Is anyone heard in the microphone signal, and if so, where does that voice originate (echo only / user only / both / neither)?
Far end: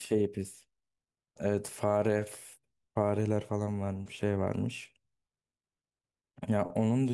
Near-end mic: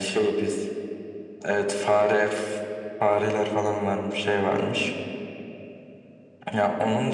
echo only